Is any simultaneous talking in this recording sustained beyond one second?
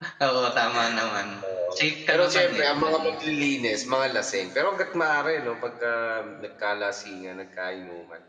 Yes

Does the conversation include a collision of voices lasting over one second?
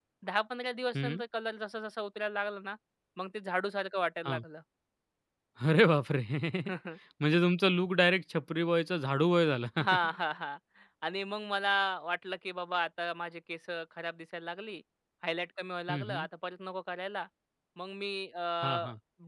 No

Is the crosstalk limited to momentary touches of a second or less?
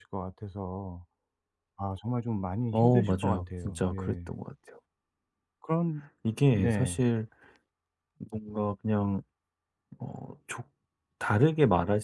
No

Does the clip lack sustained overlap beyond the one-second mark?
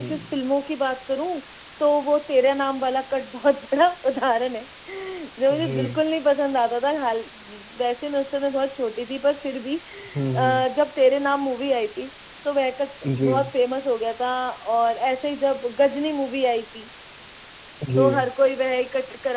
Yes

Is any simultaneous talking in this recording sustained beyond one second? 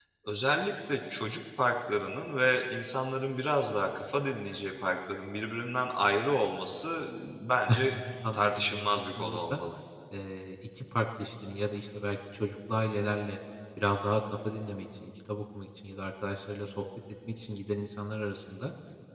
Yes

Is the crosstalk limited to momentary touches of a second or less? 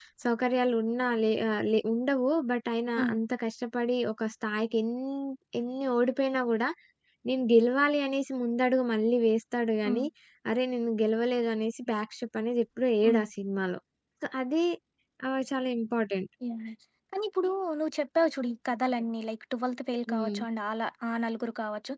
Yes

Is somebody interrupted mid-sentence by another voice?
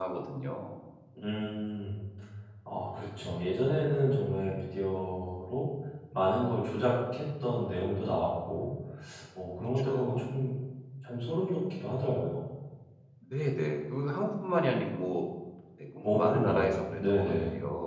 Yes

